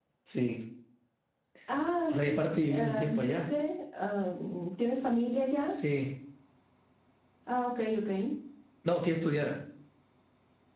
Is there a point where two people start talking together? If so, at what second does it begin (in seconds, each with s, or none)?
2.1 s